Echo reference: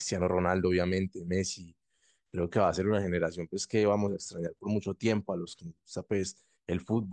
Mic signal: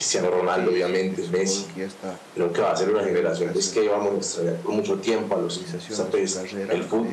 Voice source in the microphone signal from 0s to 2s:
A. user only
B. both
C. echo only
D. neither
B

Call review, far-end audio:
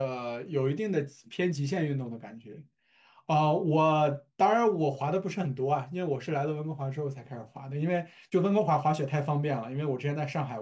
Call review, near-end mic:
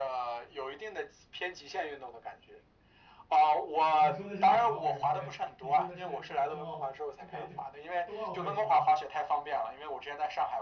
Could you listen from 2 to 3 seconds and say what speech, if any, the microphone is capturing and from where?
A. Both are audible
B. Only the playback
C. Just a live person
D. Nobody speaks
B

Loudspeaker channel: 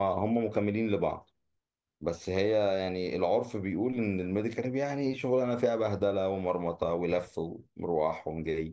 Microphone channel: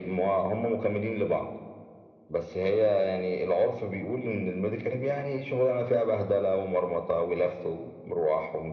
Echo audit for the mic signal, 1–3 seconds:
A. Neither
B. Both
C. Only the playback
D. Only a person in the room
C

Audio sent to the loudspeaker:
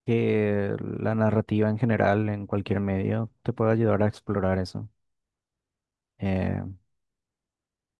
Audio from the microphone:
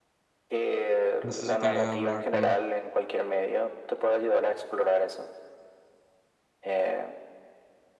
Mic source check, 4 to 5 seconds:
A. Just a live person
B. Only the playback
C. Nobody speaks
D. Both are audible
B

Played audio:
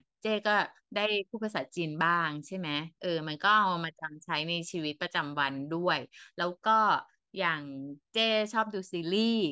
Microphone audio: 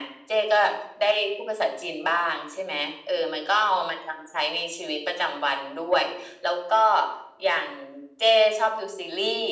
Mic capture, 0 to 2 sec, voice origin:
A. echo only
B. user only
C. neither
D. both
A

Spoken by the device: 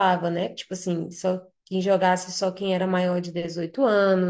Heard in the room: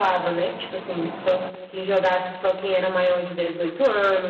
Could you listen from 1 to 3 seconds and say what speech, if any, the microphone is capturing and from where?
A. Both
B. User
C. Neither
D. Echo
D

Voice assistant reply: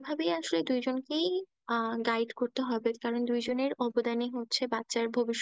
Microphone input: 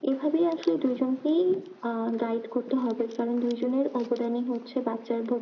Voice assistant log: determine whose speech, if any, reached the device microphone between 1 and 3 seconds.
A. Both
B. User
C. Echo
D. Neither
C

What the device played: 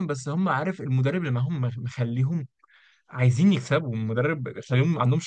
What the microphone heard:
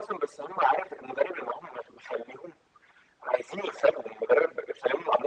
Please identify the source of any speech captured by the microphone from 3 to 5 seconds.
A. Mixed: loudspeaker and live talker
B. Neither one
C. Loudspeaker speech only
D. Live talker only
C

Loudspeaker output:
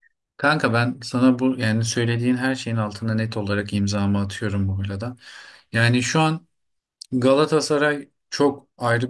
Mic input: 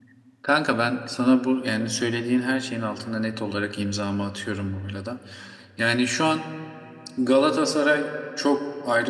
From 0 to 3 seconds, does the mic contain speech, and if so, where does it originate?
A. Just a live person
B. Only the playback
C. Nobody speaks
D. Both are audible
B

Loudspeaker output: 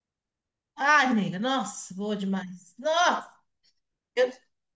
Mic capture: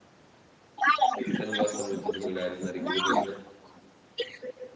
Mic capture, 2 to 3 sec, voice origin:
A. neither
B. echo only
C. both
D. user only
C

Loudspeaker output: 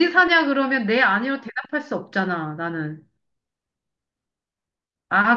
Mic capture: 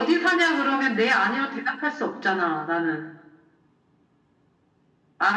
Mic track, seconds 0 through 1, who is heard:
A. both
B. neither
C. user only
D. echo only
D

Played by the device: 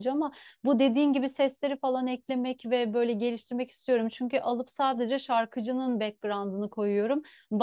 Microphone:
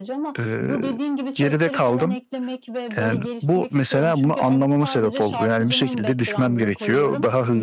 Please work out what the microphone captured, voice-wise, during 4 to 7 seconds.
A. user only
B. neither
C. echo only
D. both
D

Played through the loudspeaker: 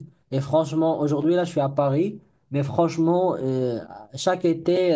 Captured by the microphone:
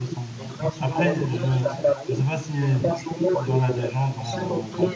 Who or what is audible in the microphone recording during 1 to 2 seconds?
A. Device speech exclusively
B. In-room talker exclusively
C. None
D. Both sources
D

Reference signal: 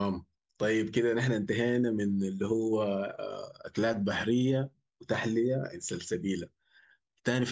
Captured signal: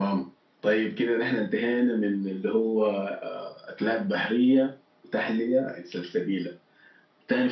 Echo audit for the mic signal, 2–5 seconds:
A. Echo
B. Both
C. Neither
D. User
A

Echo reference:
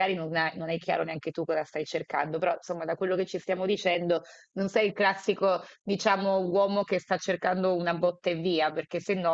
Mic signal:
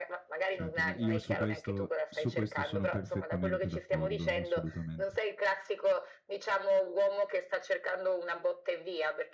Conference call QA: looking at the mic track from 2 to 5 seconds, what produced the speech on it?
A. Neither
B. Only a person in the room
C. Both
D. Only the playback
C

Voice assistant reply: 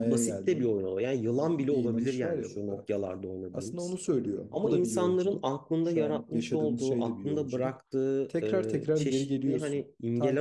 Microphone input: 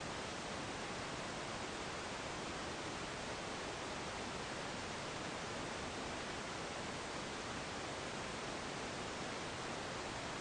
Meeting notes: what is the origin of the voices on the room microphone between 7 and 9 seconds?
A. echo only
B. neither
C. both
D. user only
B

